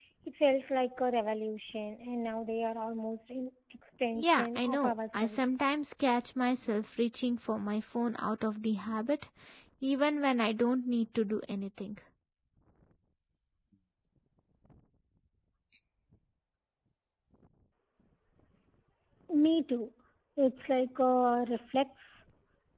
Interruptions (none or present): present